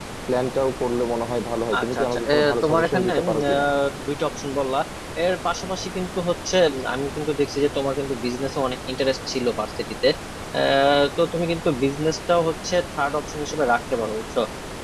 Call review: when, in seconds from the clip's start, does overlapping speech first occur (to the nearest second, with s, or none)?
2 s